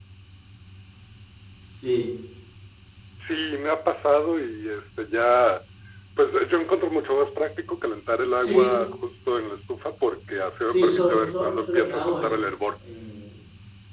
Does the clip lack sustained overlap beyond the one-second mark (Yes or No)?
No